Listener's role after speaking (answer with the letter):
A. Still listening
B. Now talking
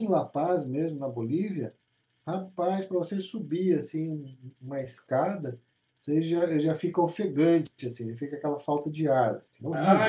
B